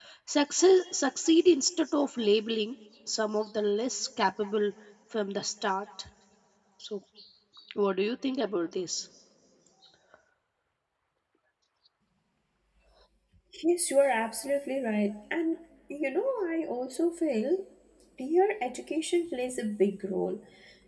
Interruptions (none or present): none